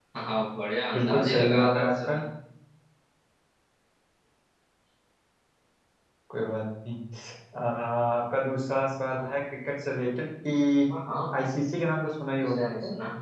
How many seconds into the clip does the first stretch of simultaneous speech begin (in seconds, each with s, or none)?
0.9 s